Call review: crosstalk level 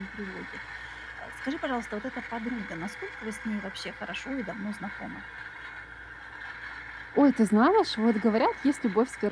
none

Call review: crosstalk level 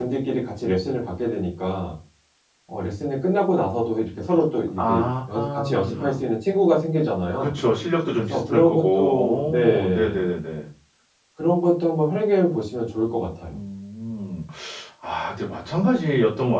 present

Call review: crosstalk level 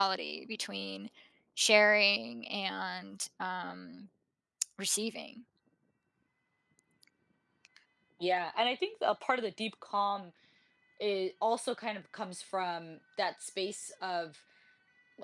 none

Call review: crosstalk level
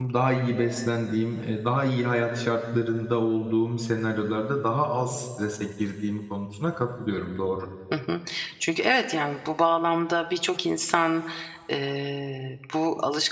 none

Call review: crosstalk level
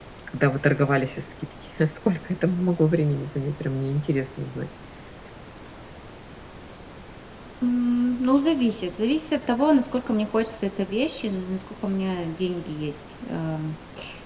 none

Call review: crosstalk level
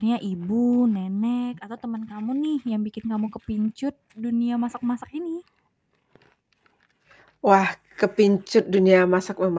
none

